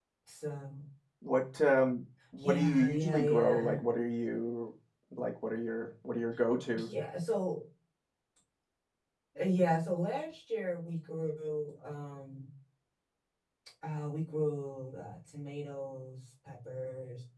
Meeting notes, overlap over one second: present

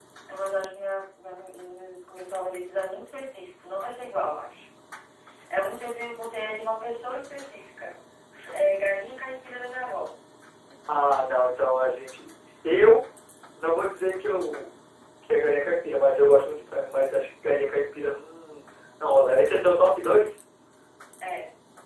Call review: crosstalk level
none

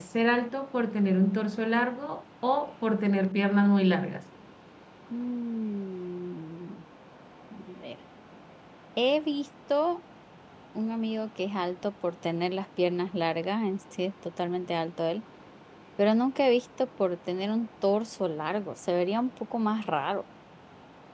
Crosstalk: none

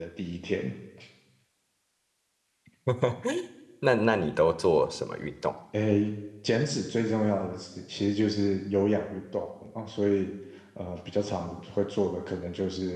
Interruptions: none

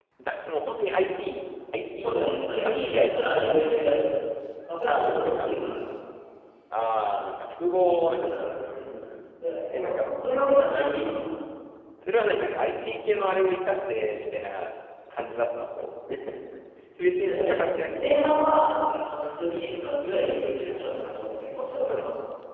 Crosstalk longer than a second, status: present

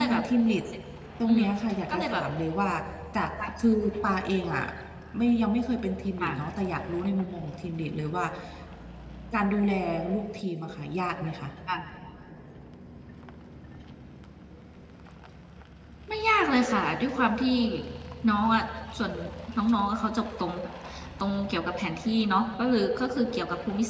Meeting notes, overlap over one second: none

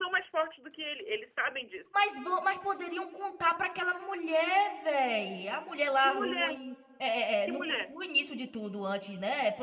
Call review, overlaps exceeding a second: none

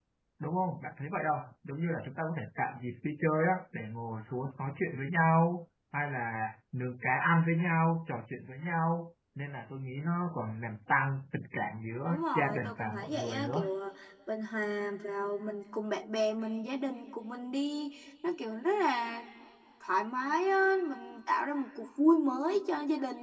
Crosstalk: present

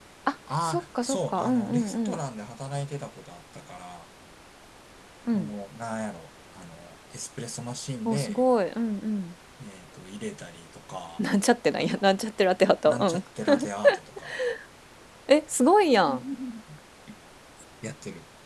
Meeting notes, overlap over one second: present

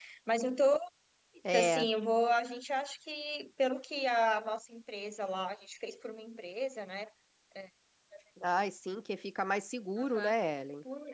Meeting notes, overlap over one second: none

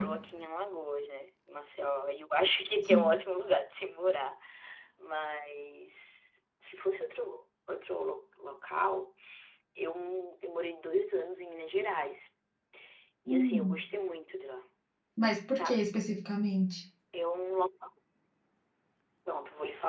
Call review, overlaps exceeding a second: none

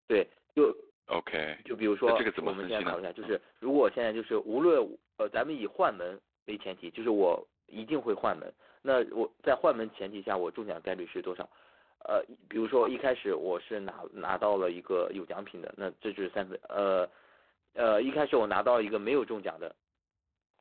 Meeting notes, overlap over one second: present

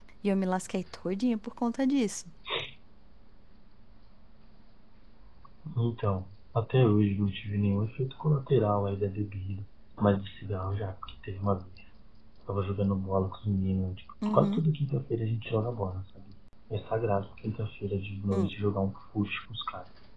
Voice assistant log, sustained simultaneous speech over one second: none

